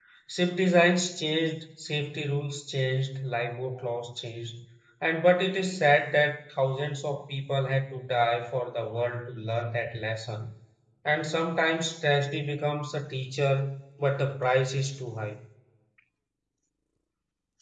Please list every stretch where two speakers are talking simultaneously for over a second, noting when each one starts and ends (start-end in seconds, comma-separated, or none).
none